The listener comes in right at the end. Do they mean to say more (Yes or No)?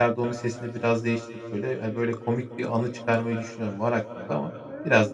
Yes